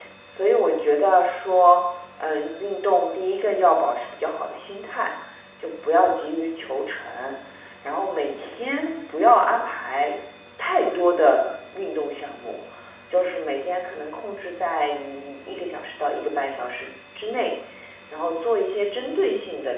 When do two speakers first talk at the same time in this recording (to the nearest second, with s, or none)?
none